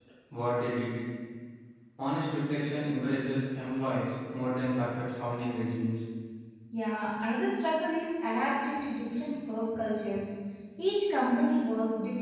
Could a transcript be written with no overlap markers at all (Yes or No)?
Yes